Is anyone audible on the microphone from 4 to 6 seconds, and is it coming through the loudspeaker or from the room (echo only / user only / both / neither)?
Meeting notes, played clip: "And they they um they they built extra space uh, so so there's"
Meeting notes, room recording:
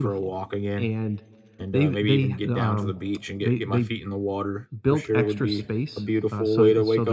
both